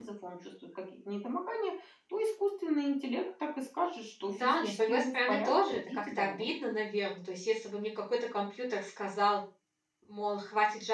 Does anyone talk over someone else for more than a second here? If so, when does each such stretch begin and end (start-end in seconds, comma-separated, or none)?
4.2-6.5